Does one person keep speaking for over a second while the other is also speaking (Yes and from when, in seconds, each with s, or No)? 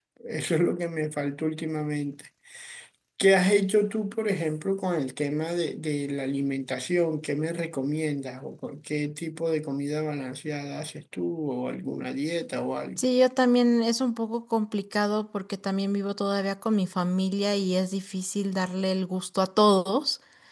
No